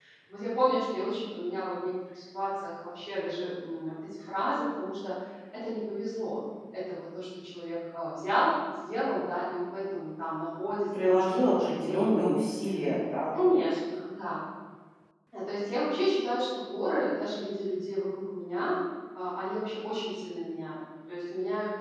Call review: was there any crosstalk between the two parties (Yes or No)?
Yes